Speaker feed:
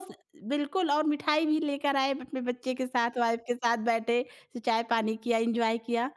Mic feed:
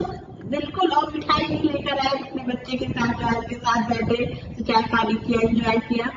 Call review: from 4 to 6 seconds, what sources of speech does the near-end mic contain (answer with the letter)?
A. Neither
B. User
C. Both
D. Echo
D